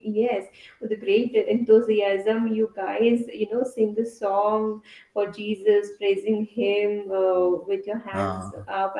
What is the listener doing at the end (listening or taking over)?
listening